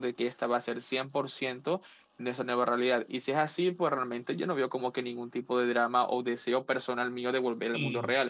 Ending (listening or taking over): taking over